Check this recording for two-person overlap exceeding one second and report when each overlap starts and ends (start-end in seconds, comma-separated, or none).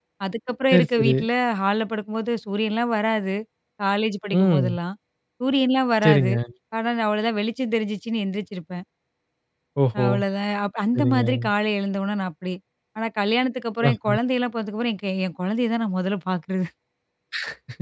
none